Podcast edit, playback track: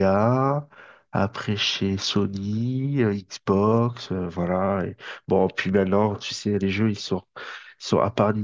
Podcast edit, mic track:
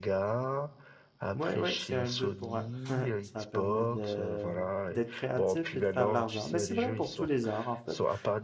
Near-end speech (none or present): present